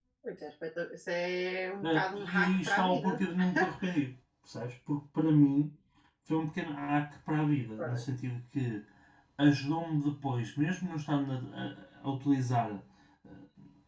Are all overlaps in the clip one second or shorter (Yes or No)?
No